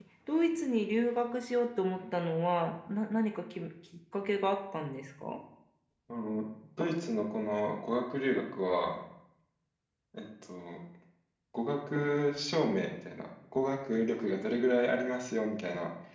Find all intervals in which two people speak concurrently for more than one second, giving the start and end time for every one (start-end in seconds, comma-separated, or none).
none